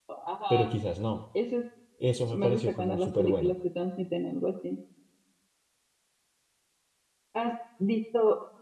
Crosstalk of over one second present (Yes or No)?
Yes